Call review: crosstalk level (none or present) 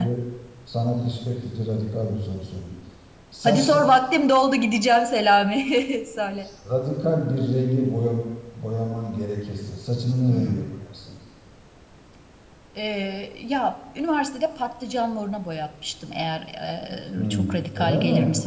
present